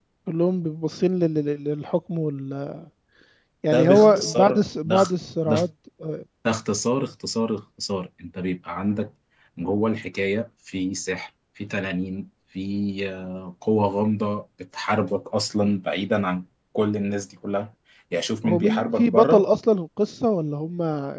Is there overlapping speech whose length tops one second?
Yes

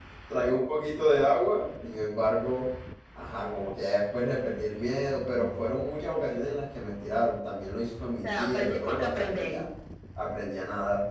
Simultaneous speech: Yes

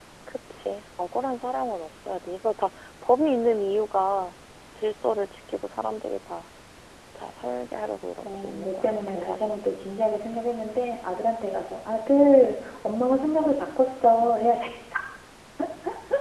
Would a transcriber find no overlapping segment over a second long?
No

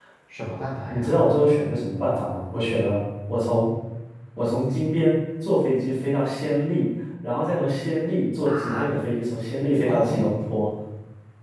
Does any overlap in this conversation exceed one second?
No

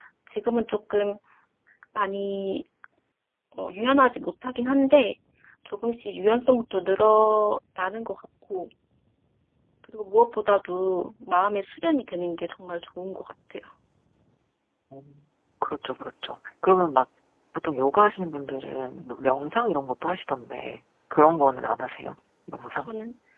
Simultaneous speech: No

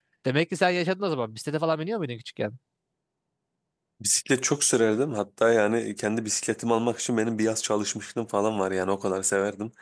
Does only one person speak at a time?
Yes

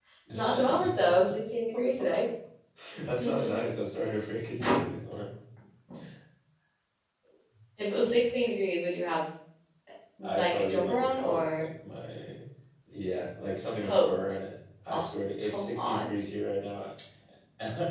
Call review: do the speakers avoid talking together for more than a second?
No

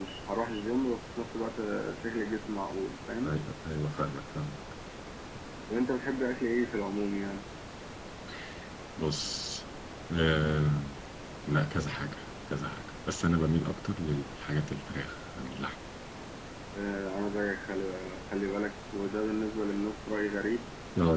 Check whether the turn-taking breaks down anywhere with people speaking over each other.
No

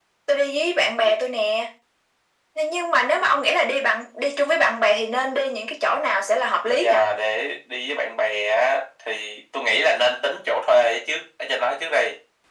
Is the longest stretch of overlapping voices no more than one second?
Yes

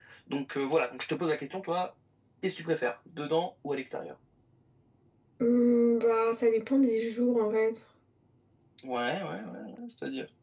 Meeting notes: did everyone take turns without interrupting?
Yes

